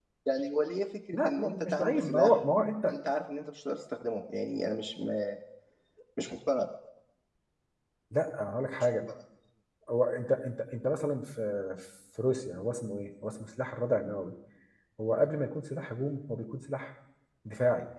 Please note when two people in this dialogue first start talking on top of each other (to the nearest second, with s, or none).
1 s